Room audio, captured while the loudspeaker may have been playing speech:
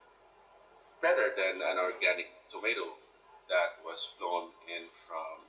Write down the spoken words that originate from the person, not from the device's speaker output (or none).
none